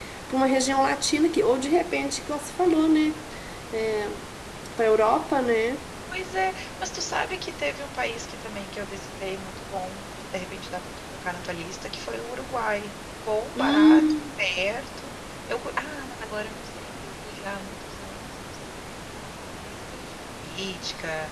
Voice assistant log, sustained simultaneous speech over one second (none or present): none